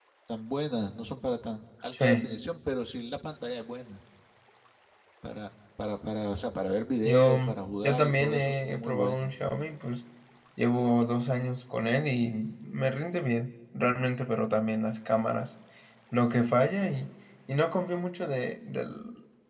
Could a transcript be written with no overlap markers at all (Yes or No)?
No